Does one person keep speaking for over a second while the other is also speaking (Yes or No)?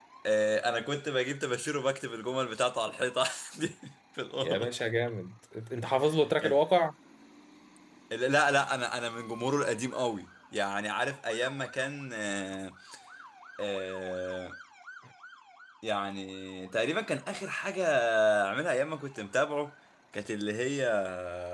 No